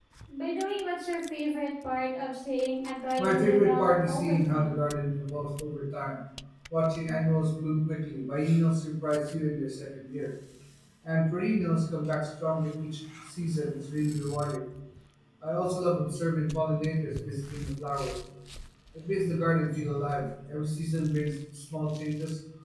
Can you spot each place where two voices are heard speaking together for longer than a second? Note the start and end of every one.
3.2-4.8

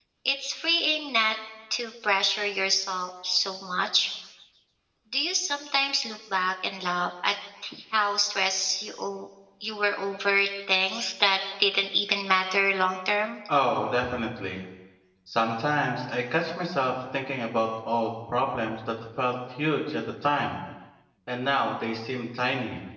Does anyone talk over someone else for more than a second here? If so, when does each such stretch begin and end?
none

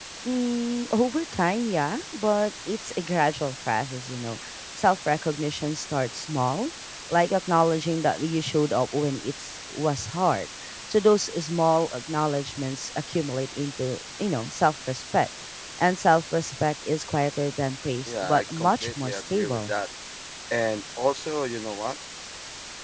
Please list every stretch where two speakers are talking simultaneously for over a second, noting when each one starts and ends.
18.1-19.7

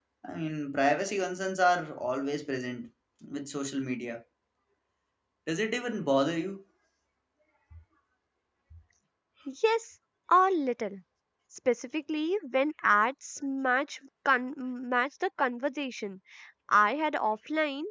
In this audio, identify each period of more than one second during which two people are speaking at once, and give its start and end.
none

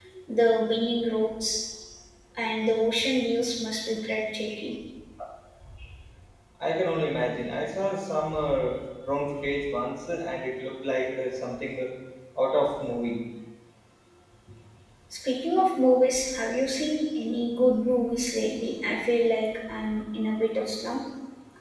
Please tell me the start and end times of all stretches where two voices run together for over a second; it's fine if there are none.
none

